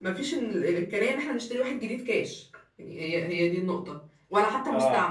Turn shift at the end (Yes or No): No